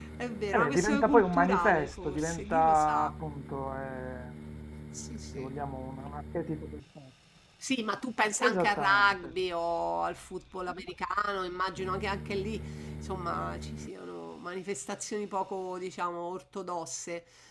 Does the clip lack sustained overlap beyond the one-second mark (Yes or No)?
No